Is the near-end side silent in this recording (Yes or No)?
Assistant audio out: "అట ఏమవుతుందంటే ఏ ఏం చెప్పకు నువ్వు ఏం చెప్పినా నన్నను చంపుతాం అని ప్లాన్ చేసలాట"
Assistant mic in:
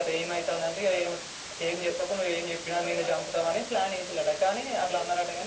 Yes